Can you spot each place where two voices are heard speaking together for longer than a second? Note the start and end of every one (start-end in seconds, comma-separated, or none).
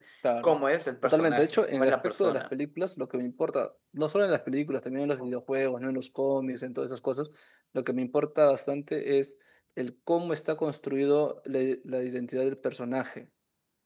1.0-2.4